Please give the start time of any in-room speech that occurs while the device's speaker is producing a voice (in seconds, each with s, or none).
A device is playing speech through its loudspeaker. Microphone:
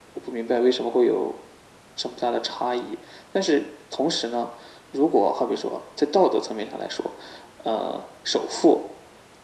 none